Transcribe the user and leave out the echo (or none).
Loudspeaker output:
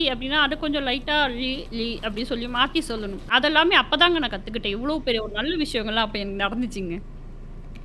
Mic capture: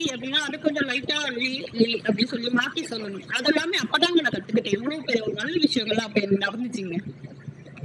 none